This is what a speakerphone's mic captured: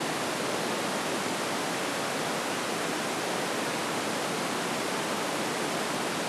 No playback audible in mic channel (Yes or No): Yes